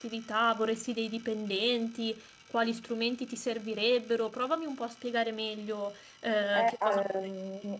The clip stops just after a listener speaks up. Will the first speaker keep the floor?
No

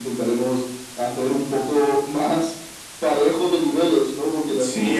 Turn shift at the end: Yes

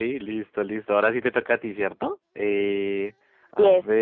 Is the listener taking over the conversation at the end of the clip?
No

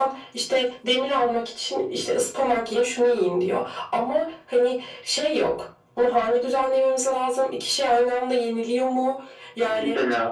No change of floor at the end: Yes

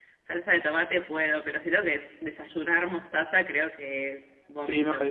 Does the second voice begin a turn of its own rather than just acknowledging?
Yes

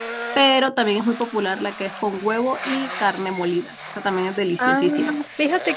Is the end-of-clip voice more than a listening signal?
Yes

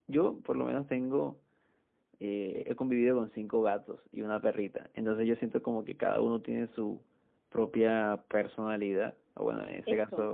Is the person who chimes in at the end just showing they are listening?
Yes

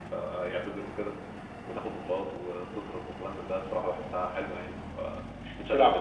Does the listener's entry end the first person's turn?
Yes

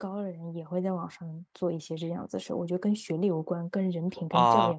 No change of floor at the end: No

